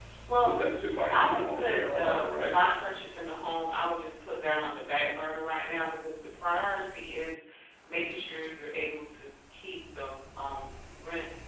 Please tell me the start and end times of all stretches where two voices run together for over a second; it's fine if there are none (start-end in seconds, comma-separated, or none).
1.1-2.6